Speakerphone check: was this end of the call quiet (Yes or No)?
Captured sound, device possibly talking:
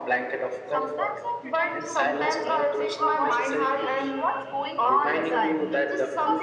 No